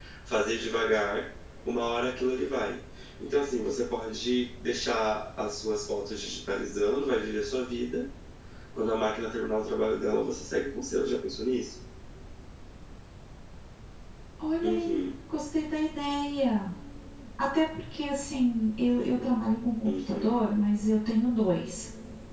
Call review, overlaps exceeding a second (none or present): none